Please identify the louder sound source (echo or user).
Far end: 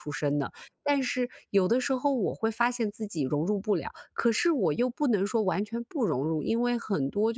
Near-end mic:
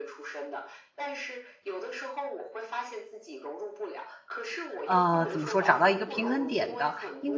user